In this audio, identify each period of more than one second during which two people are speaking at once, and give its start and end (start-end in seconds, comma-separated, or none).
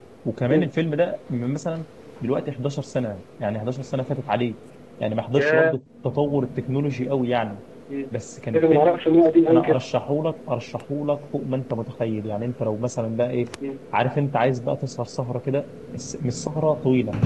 none